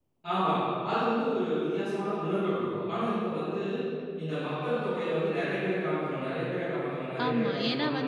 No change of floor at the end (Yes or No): No